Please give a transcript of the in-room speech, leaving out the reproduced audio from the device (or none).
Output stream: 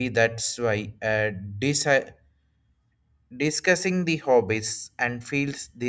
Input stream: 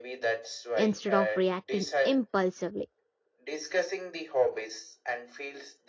instead of reacting impulsively.